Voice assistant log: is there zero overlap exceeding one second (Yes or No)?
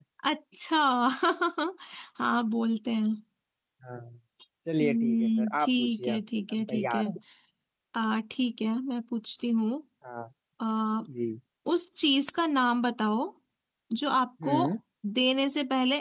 No